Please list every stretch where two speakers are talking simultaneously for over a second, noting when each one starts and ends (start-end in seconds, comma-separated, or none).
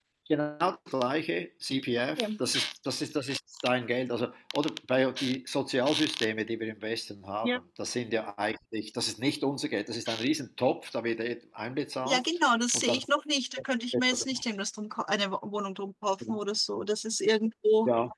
none